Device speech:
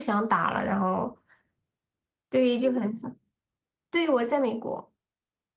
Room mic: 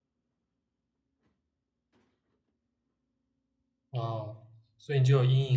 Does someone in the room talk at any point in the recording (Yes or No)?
Yes